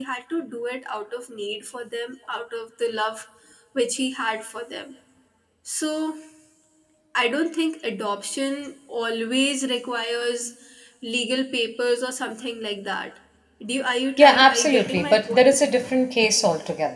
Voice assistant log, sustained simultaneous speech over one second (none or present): present